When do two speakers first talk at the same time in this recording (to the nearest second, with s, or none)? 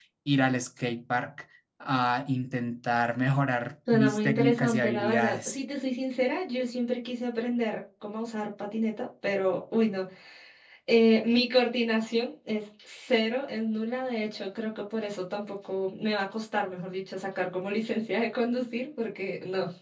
4 s